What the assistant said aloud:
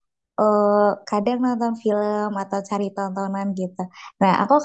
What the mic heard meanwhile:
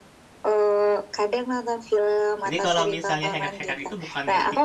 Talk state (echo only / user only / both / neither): both